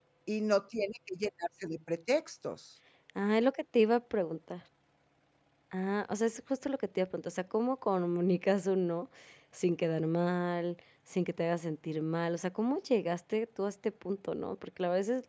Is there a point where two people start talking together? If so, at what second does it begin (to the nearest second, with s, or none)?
none